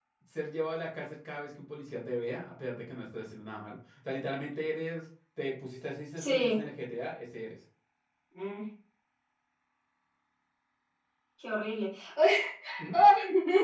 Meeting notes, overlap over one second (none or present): none